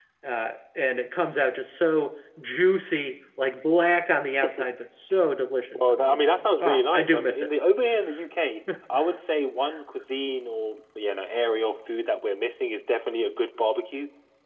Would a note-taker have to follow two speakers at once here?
Yes, from 5.8 s

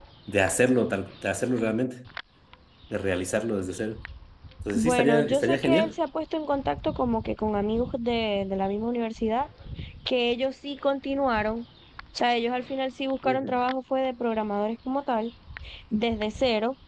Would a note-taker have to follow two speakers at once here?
Yes, from 4.7 s

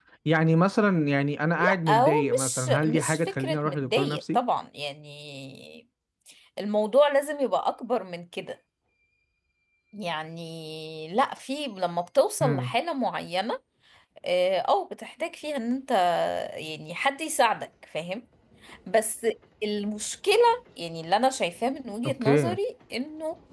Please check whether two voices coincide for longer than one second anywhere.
Yes, from 1.6 s

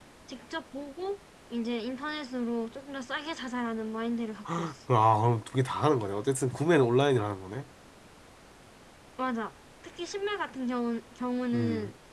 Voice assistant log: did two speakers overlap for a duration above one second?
No

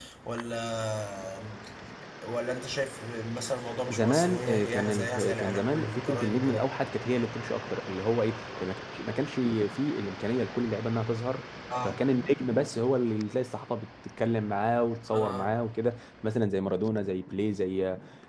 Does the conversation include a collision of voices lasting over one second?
Yes, from 3.9 s

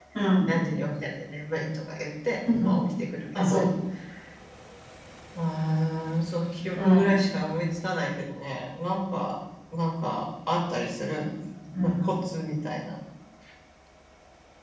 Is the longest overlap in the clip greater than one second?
No

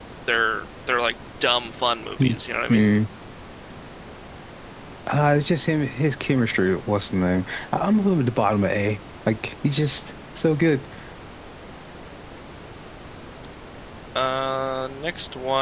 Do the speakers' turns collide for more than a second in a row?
No

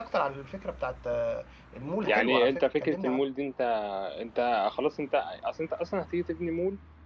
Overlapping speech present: Yes, from 2.0 s

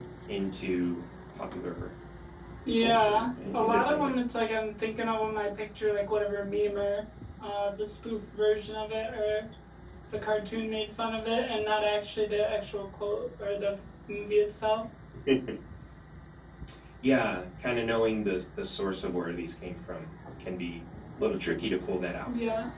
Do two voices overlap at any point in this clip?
Yes, from 2.8 s

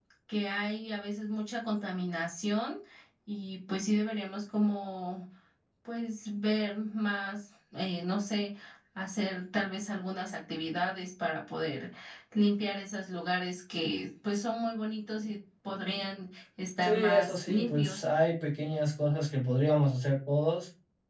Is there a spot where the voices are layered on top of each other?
Yes, from 16.8 s

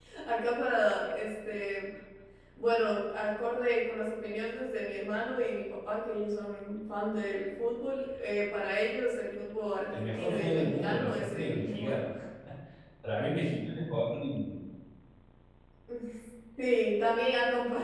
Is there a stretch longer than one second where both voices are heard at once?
Yes, from 9.9 s

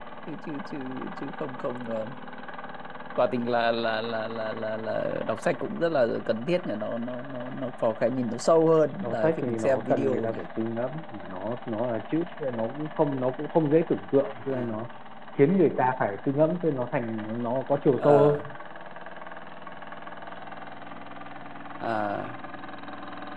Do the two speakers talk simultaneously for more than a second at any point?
Yes, from 9.0 s

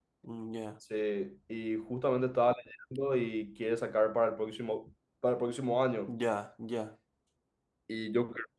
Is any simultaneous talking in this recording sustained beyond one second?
No

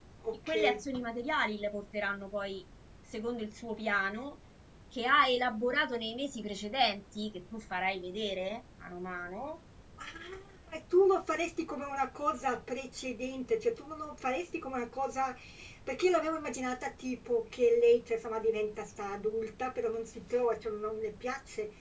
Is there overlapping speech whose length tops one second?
No

